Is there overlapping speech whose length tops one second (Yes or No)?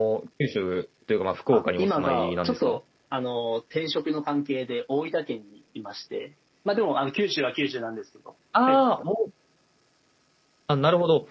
Yes